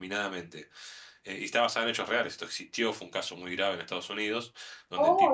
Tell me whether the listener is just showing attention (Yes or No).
No